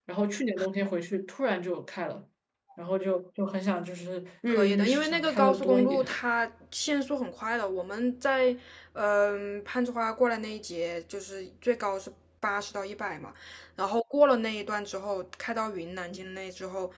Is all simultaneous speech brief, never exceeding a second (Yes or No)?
No